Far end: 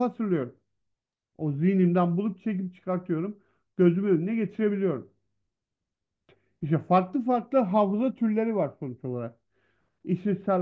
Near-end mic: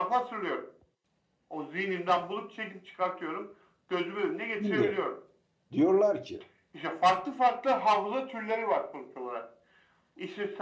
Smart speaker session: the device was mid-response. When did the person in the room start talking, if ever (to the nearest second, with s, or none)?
5 s